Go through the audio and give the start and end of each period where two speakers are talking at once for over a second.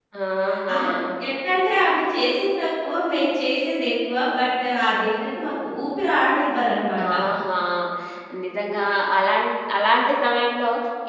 none

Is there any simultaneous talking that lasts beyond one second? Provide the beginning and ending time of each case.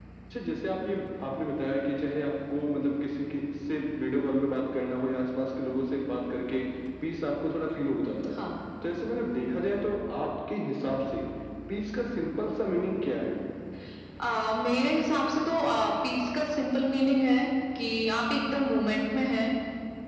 none

